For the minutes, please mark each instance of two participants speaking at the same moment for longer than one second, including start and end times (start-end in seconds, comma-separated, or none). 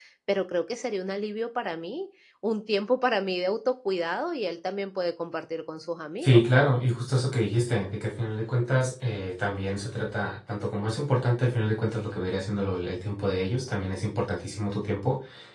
none